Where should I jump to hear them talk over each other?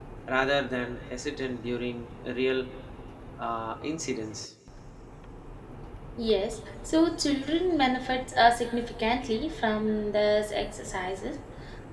none

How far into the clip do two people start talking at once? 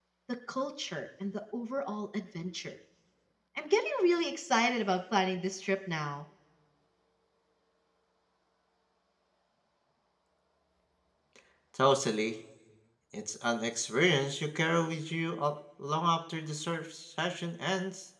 none

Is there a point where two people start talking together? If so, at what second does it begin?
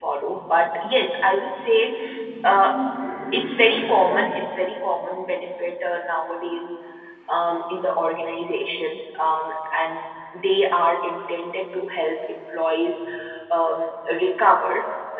none

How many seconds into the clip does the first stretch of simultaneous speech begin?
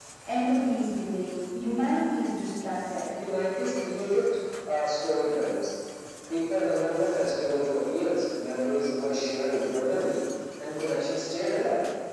none

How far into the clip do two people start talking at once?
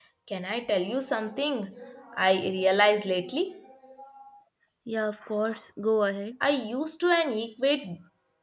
none

